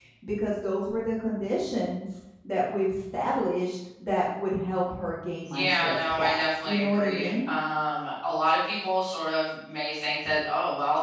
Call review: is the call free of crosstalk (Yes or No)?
No